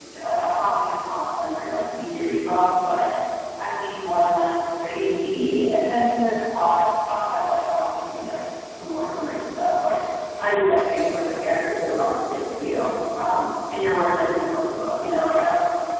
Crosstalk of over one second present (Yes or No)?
No